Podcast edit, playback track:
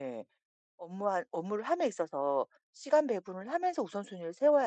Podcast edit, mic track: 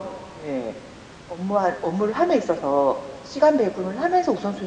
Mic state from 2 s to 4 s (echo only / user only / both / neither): echo only